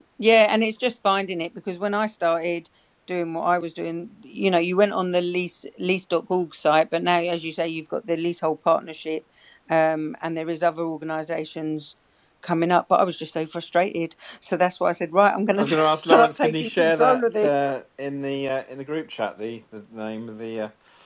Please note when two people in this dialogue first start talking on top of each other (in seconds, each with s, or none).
15.6 s